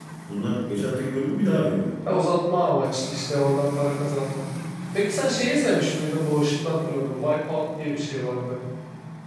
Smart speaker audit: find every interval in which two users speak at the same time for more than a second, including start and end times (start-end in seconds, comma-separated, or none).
none